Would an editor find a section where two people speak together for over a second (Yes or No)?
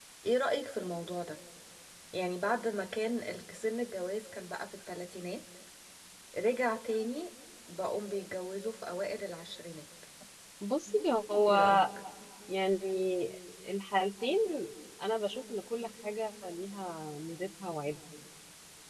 No